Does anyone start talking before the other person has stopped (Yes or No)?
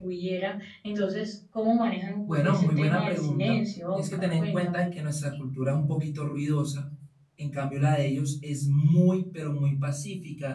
Yes